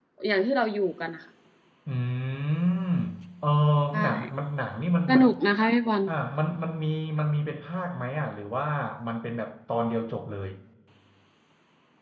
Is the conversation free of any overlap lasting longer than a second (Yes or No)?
Yes